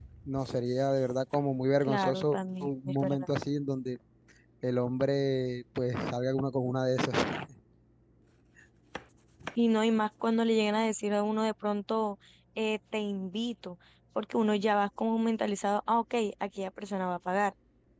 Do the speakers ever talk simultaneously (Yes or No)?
Yes